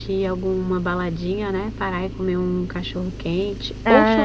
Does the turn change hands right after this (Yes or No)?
Yes